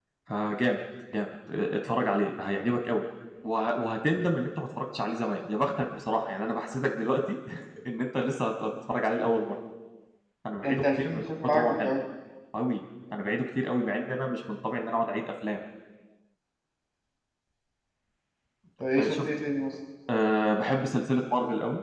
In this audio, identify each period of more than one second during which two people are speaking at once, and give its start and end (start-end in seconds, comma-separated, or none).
10.6-11.9